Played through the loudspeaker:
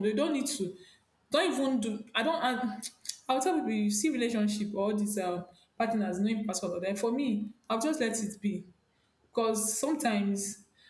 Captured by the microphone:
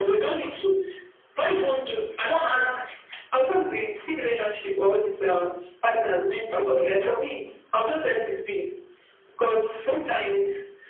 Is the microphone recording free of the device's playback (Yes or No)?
No